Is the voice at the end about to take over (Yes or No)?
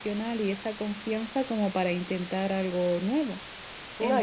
Yes